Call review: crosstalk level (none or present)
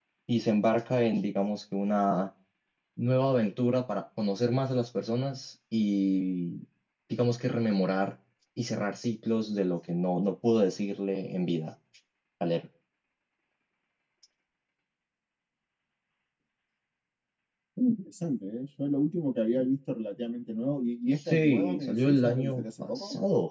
present